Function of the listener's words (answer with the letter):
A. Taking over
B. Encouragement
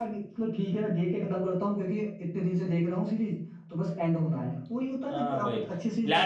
A